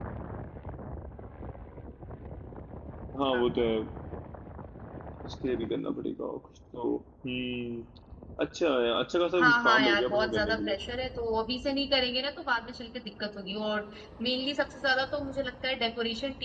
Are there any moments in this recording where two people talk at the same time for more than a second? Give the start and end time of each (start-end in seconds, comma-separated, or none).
9.4-10.8